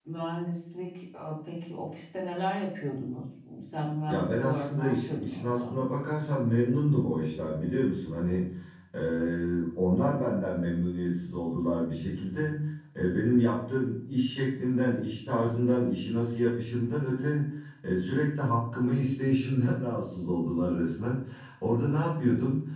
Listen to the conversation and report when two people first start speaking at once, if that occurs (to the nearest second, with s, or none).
4 s